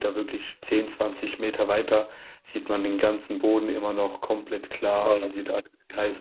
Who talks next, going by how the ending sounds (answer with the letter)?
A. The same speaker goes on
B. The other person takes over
A